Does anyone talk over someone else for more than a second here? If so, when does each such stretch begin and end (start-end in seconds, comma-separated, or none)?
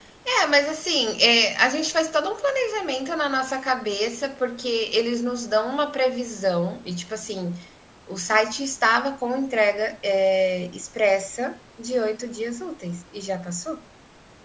none